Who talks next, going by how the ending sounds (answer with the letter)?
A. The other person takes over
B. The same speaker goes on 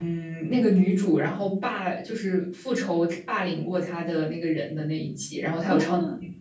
A